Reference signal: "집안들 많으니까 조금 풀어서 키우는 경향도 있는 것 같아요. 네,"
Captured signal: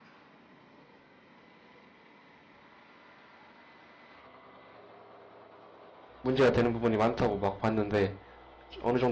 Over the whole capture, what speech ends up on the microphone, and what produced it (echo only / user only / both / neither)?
user only